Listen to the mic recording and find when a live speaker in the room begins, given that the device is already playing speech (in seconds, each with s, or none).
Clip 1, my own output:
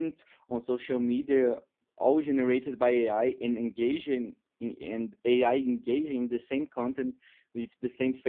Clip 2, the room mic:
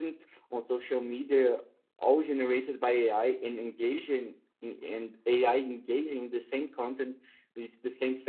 none